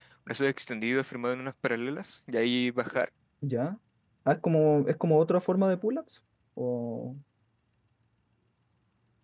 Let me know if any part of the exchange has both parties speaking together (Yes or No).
No